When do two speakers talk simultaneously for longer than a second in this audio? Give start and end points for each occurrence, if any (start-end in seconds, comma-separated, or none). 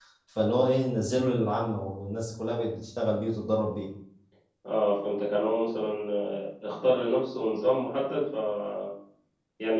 none